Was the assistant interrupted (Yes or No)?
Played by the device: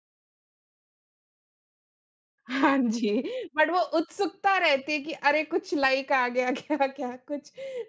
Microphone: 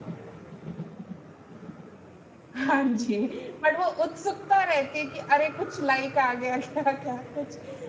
No